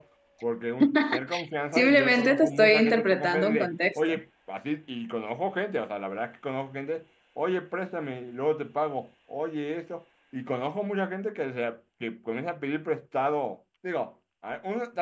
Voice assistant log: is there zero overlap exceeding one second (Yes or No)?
No